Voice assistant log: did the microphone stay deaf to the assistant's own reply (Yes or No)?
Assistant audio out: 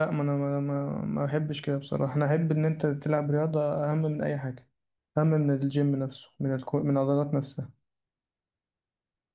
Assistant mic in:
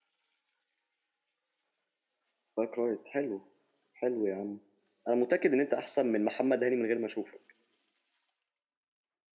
Yes